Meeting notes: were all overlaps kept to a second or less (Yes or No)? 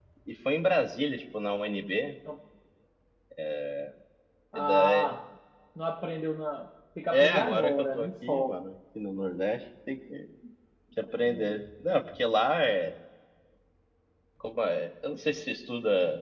No